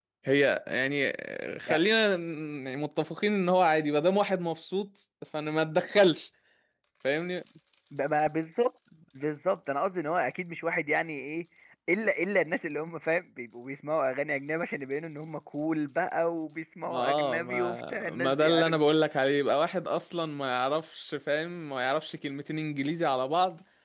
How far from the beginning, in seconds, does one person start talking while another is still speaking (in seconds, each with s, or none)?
16.9 s